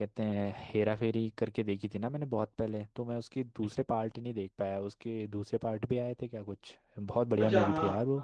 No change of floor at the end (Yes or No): No